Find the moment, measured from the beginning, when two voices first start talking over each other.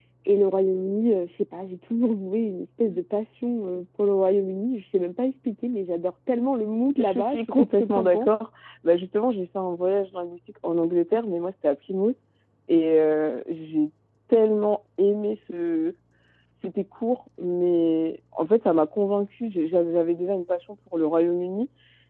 7.0 s

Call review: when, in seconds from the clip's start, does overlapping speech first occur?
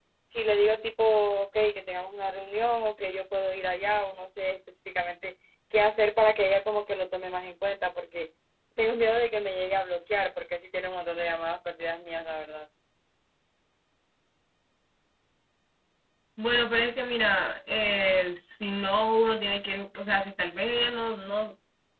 none

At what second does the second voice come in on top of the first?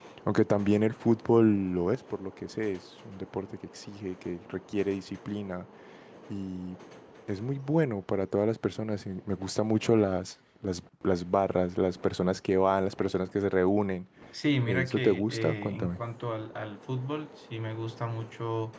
14.6 s

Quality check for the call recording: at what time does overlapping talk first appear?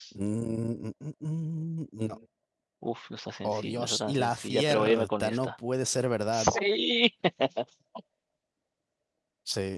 3.4 s

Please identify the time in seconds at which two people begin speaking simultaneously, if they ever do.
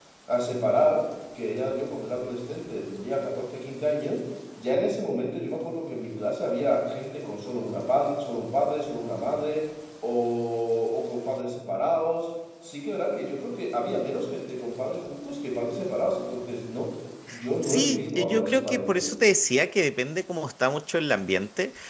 17.6 s

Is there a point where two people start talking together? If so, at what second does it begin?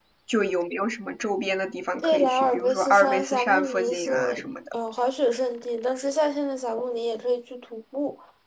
2.0 s

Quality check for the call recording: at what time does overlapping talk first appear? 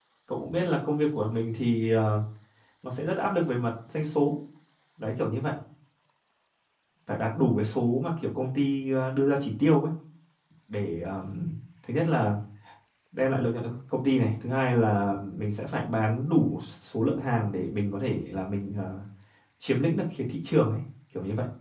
none

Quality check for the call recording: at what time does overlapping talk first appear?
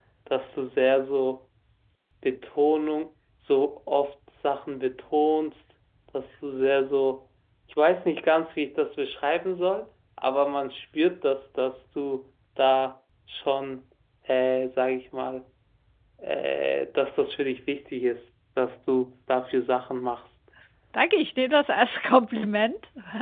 none

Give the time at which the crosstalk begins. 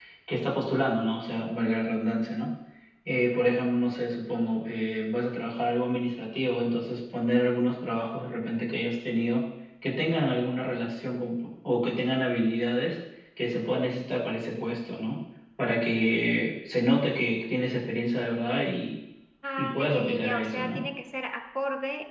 19.6 s

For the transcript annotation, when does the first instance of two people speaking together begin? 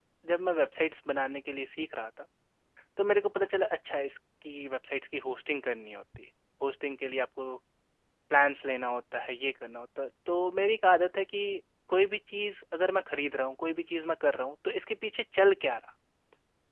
none

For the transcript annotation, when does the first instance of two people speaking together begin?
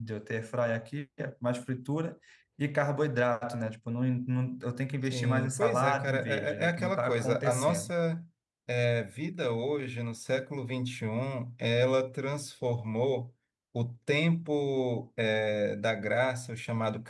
5.0 s

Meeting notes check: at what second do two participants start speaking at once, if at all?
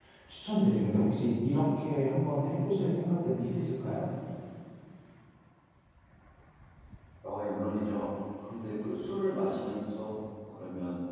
none

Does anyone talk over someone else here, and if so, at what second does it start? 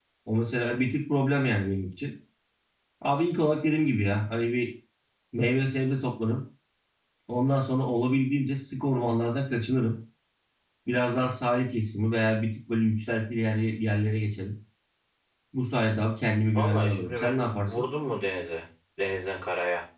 16.6 s

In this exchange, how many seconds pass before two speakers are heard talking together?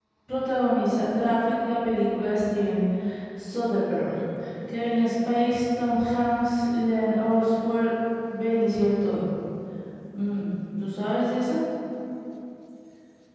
none

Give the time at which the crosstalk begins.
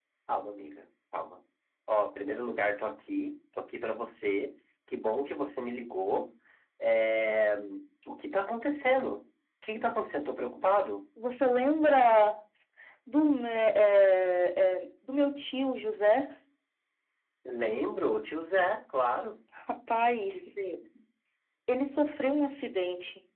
none

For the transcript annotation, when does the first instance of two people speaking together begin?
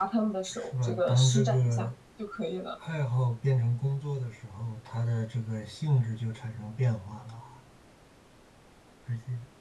0.5 s

